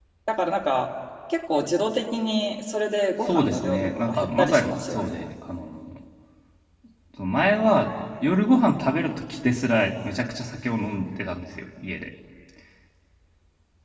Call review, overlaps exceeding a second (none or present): present